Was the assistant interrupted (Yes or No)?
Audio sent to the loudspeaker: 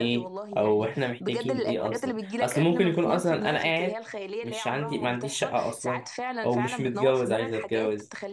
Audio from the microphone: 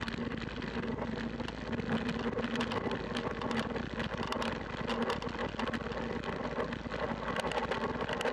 No